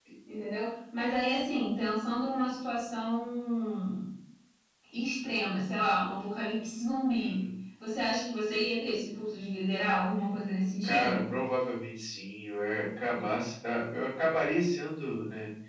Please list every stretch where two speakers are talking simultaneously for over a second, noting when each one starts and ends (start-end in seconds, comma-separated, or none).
none